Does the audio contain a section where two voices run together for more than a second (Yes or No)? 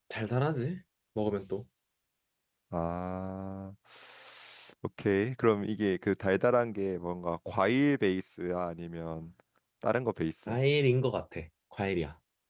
No